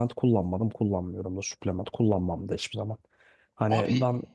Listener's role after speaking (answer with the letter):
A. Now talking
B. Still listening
B